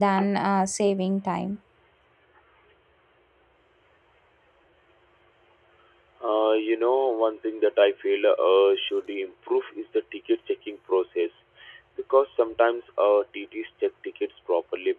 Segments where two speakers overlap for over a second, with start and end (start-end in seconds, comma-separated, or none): none